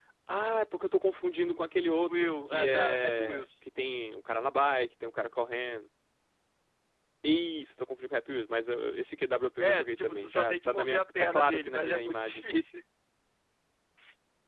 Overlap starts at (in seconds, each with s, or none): 2.1 s